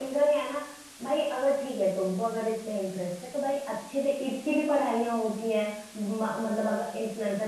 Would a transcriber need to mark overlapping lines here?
No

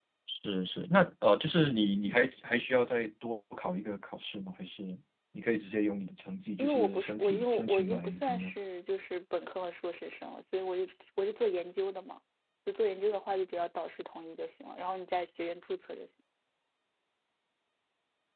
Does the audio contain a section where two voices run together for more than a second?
Yes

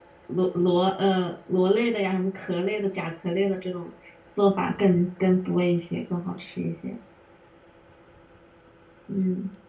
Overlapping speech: No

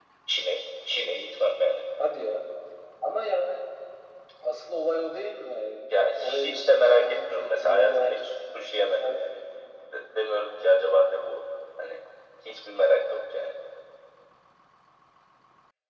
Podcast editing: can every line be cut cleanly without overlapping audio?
No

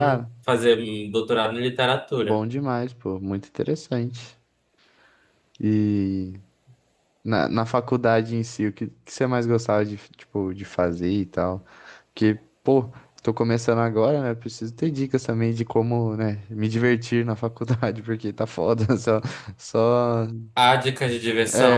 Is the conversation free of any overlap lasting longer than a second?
Yes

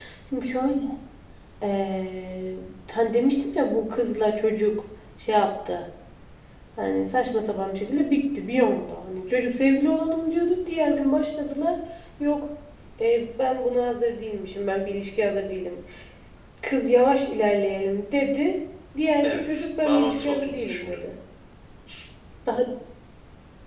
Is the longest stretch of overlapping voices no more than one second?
No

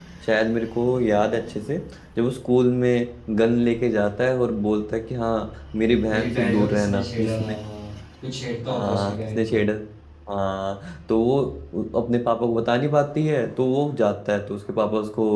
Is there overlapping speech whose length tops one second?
Yes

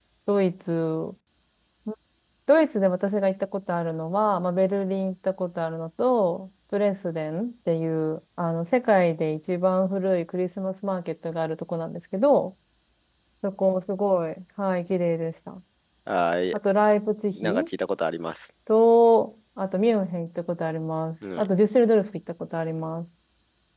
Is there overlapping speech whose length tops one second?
No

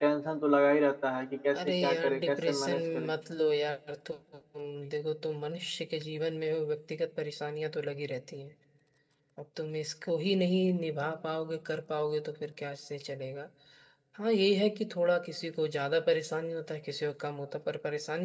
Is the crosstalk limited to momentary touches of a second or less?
No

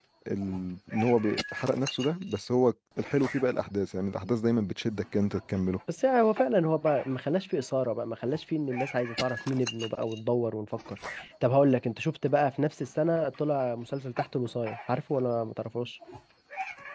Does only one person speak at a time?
Yes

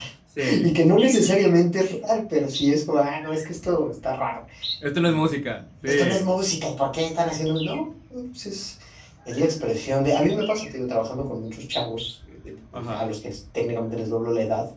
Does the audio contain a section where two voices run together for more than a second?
No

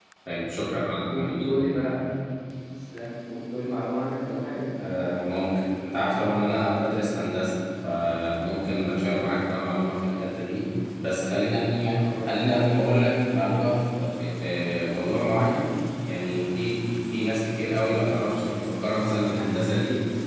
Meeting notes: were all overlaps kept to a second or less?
Yes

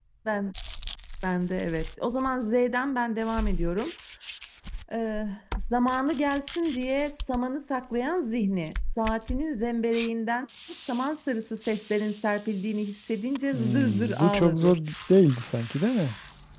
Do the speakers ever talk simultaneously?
Yes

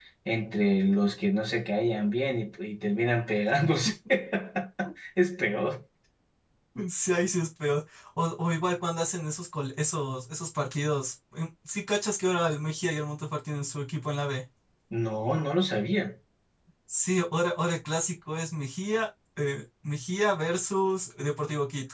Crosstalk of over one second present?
No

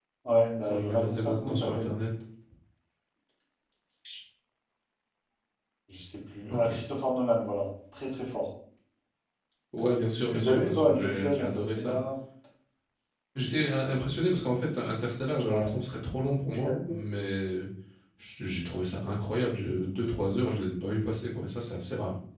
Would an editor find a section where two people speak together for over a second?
Yes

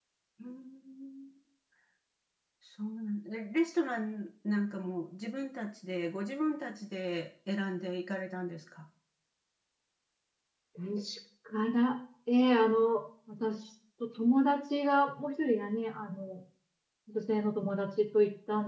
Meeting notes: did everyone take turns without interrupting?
Yes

